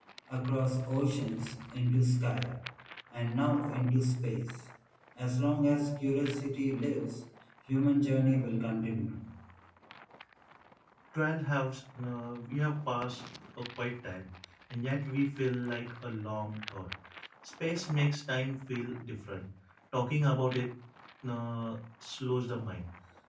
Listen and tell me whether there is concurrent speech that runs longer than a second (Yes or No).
No